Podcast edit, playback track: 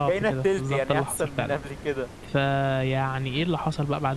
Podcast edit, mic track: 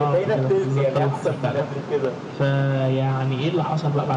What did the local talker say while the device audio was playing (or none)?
none